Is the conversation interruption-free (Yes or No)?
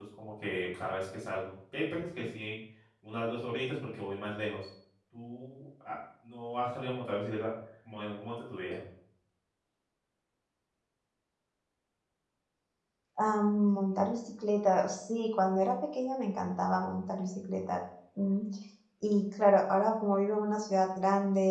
Yes